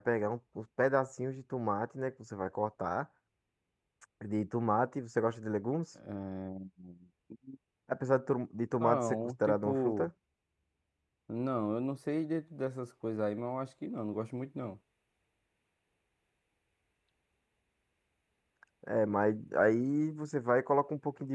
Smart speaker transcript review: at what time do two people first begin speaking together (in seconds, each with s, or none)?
8.8 s